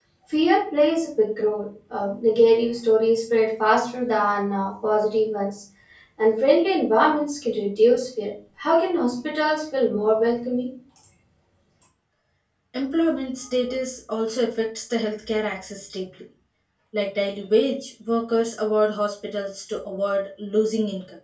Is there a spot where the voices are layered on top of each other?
No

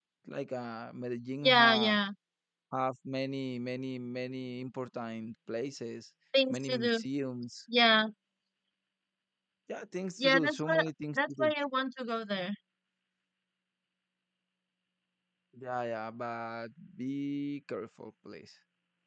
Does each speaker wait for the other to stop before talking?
No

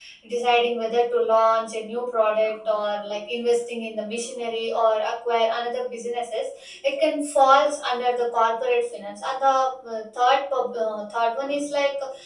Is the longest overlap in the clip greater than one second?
No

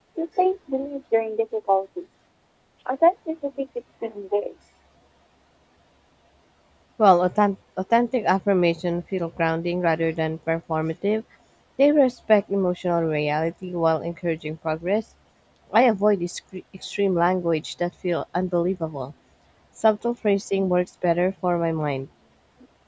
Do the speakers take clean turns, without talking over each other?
Yes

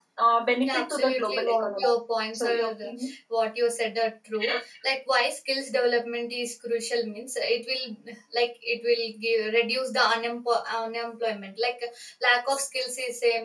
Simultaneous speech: Yes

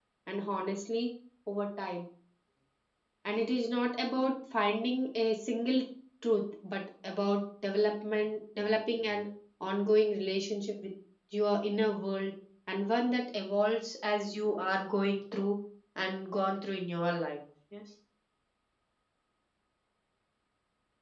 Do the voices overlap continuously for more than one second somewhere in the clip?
No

